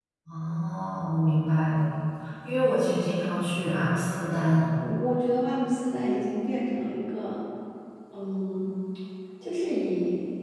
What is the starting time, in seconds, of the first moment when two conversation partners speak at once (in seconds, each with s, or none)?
none